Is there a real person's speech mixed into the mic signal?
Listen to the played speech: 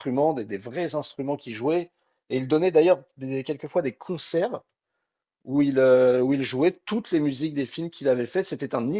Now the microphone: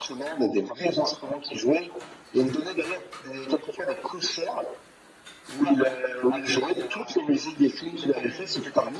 Yes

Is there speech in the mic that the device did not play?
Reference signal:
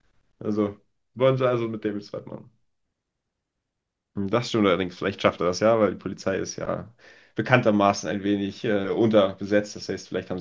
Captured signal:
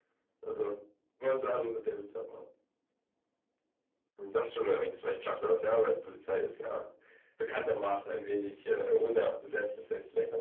No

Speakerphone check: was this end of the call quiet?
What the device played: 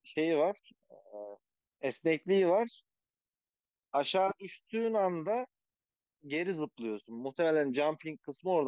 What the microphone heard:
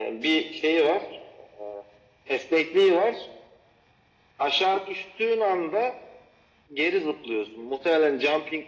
Yes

